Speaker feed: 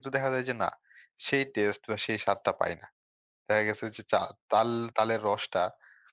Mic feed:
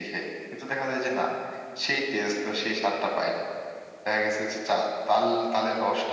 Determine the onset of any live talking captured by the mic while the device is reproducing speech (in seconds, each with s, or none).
none